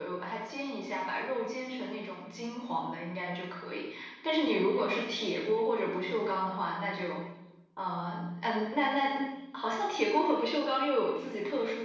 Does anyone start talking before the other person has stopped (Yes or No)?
No